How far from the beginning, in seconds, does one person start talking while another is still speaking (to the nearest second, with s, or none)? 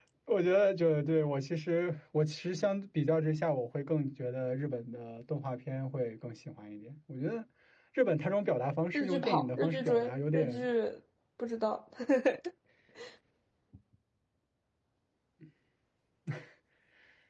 9 s